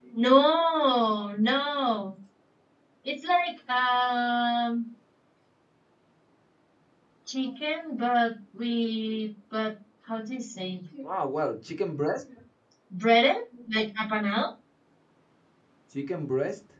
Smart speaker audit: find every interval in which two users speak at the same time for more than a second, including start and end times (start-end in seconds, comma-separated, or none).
none